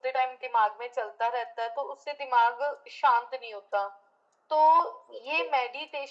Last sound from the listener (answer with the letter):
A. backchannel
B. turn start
A